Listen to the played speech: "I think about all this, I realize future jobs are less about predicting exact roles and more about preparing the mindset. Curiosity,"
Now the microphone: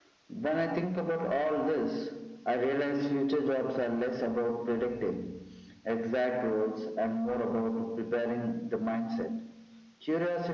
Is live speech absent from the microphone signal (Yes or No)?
Yes